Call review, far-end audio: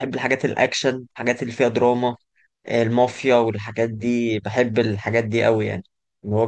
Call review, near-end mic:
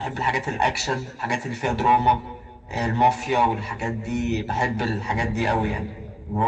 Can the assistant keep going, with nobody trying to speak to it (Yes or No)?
Yes